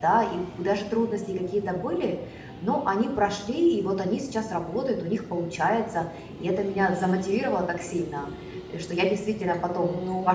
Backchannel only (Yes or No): No